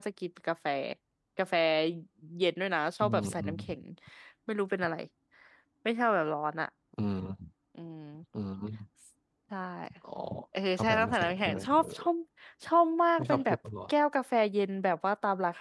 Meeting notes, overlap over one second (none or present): present